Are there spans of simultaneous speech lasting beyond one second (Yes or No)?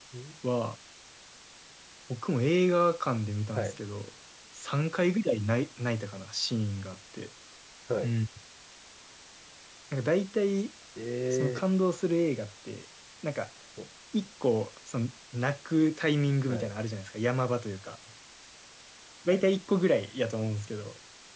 No